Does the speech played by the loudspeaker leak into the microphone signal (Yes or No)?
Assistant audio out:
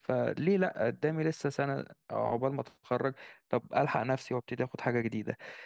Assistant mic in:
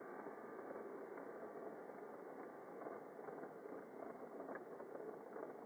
No